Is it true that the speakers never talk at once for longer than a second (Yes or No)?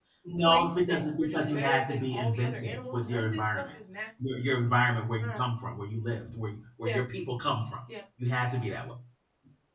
No